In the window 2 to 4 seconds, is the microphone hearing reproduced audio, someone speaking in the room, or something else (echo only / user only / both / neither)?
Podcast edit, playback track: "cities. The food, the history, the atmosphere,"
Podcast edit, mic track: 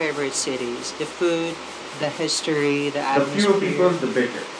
both